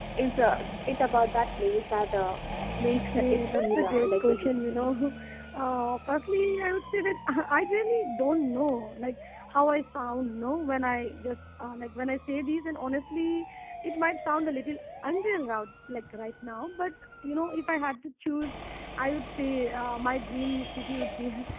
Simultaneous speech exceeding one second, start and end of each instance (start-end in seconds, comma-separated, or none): 3.1-4.9